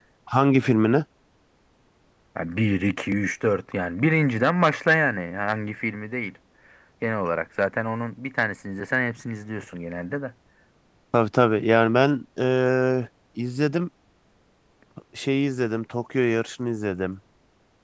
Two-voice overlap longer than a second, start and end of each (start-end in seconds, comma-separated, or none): none